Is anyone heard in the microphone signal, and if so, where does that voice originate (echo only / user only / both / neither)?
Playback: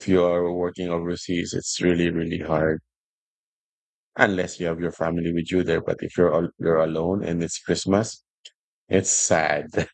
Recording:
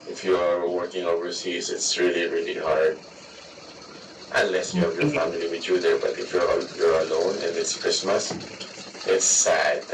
both